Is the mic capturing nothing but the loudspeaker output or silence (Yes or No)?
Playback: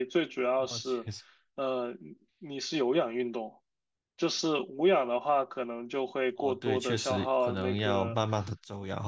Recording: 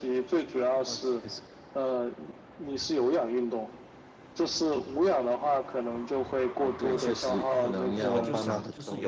No